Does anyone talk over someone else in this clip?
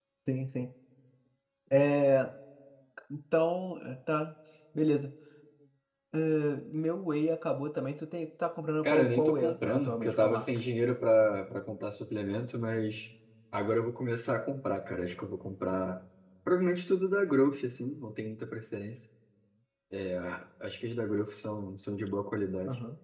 Yes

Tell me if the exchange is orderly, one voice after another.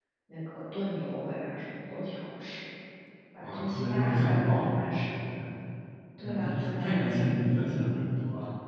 No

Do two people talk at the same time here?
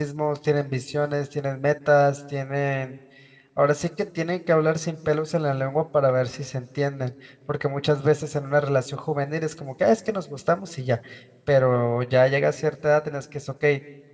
No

